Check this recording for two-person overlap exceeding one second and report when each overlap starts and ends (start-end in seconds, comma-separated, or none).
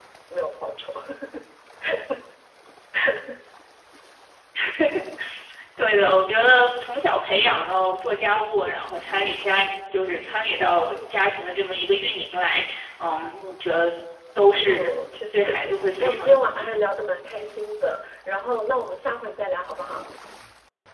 15.3-16.7